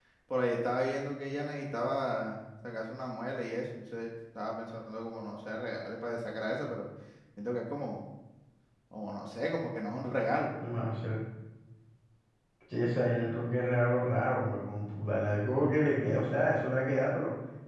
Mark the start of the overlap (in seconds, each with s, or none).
none